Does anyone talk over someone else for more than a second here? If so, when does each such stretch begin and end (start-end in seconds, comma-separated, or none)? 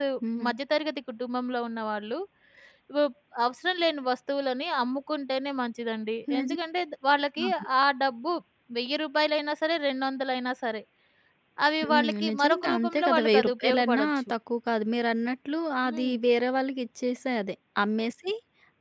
11.9-14.3